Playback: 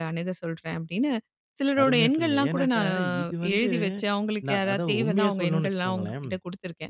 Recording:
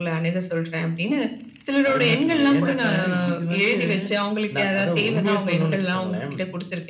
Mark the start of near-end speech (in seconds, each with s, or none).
none